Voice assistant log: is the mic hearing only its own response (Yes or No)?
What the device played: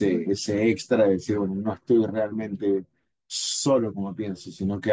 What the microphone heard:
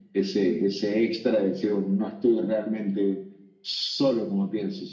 Yes